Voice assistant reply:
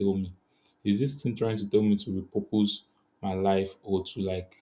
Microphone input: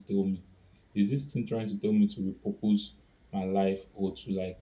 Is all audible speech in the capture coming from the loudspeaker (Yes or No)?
Yes